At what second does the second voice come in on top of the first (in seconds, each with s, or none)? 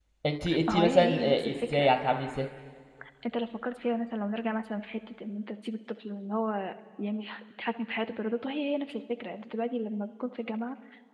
0.7 s